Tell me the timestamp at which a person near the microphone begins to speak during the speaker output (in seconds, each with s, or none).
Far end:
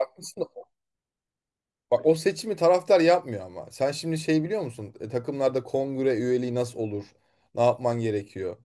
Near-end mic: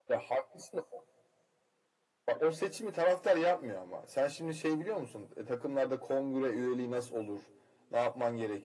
none